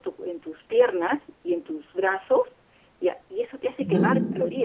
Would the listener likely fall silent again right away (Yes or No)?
Yes